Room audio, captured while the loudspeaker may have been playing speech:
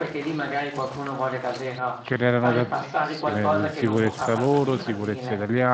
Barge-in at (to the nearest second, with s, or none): 2 s